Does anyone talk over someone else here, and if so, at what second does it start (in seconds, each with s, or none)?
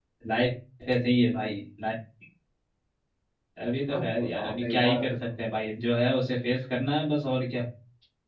3.9 s